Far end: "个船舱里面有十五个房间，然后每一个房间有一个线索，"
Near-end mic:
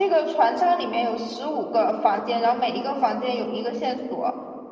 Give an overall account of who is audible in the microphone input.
echo only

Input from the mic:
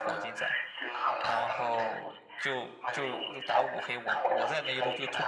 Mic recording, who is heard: both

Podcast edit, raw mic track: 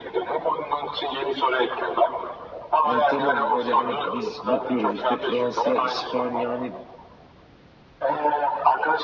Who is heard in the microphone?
both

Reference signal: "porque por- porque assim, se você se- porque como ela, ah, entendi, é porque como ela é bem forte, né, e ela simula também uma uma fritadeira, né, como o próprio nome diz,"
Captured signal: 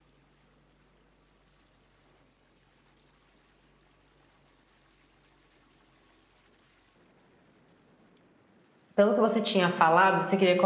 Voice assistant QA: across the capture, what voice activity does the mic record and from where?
user only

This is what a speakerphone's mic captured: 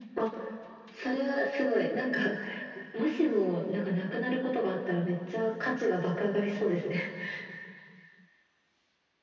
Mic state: echo only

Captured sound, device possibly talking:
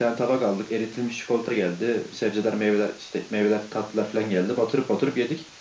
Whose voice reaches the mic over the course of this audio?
echo only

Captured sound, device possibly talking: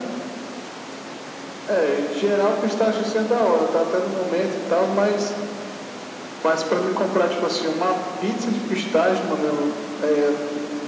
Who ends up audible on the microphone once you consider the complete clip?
echo only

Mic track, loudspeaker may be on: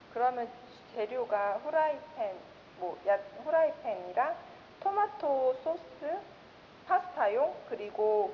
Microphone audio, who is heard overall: echo only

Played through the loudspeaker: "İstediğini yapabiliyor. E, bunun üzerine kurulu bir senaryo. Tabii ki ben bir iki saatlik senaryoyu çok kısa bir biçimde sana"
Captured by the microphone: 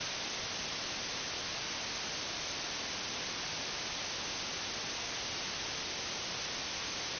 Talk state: neither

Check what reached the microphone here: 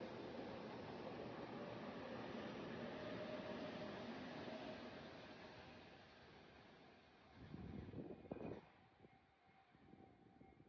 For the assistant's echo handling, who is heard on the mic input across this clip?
neither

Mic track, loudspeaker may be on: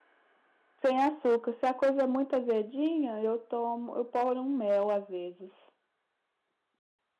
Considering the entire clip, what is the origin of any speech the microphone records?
user only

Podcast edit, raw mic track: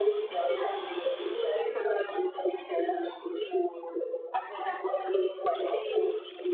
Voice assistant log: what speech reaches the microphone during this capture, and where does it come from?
echo only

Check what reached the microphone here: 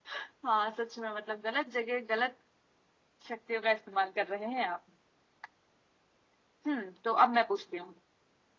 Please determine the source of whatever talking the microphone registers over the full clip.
echo only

